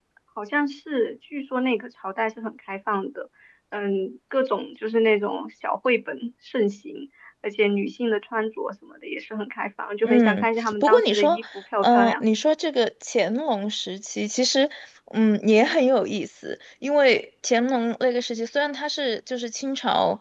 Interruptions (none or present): present